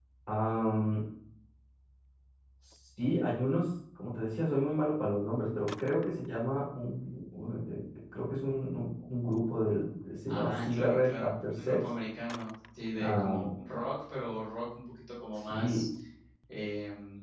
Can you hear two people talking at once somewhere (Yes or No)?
Yes